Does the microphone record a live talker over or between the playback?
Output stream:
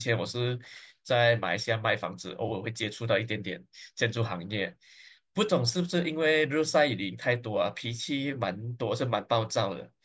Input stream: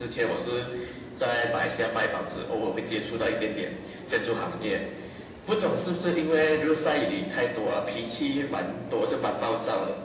No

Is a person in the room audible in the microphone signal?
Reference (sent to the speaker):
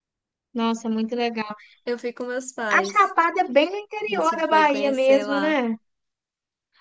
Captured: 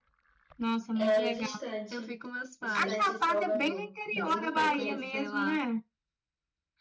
Yes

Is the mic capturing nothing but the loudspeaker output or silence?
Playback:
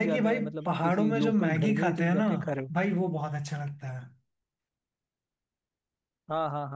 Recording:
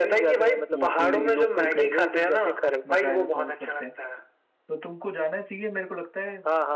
No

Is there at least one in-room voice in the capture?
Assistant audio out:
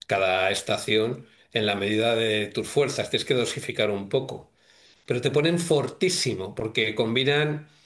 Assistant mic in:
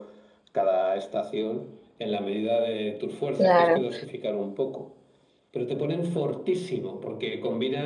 Yes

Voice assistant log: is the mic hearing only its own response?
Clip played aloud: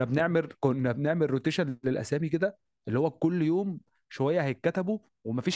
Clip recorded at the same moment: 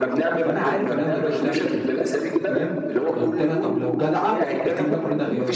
No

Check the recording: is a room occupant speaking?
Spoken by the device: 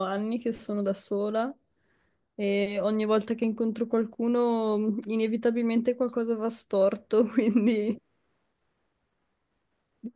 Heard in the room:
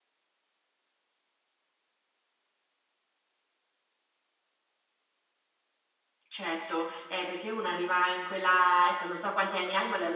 Yes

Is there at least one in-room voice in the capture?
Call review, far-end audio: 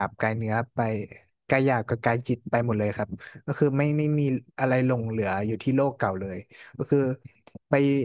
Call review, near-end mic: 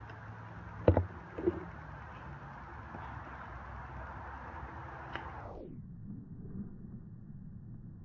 No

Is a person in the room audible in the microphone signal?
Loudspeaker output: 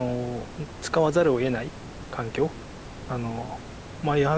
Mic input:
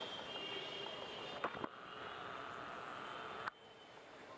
No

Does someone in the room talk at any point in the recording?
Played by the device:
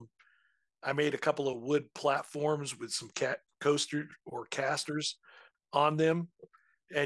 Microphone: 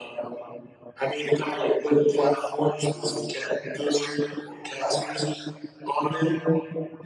No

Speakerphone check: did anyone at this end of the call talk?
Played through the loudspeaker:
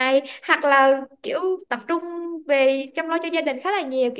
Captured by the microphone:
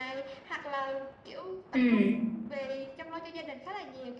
Yes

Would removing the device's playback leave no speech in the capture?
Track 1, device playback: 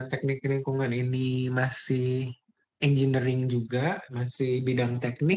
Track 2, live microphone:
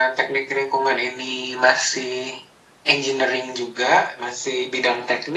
Yes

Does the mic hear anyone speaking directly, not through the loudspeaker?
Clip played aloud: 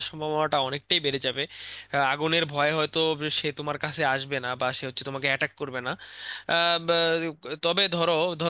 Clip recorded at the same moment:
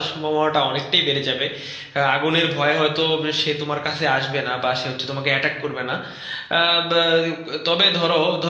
No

